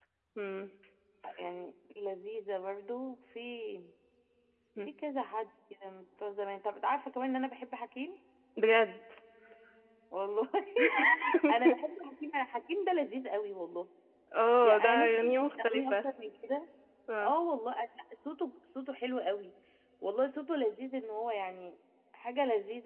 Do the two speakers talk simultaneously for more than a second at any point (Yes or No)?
Yes